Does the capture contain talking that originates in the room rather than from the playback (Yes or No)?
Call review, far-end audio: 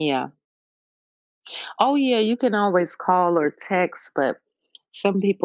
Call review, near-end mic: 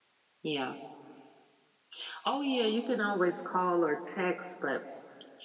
No